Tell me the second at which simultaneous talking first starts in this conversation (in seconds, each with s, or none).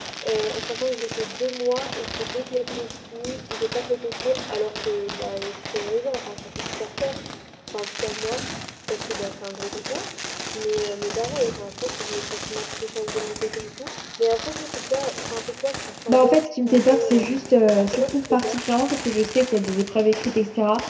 16.1 s